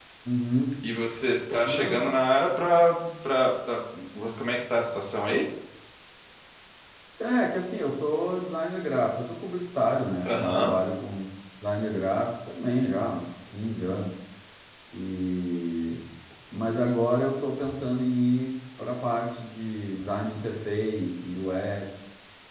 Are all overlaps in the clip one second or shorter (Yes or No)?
Yes